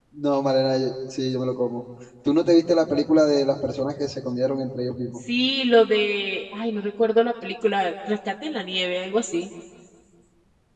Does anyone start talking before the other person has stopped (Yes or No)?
No